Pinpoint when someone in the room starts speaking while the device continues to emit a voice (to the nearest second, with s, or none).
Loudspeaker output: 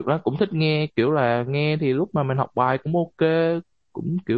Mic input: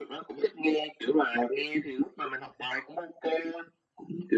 none